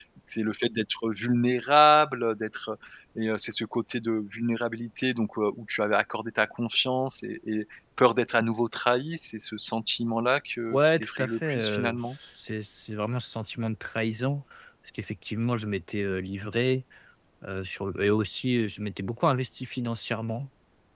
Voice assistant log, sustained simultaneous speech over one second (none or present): present